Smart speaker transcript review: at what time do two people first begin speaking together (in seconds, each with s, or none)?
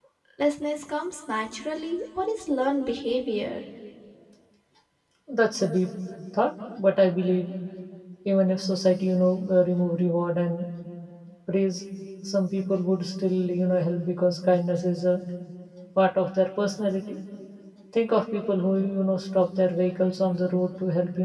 none